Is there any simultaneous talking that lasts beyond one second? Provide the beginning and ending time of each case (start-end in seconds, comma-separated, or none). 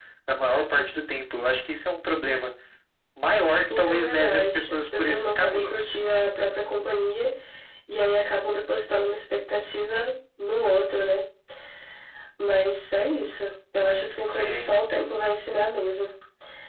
3.8-6.0